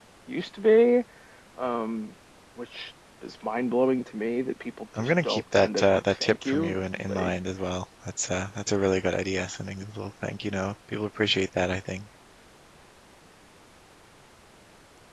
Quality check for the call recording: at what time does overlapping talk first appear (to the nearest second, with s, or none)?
5 s